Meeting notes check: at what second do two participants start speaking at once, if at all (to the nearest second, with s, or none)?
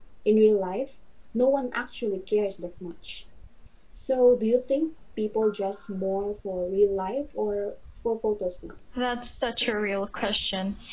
none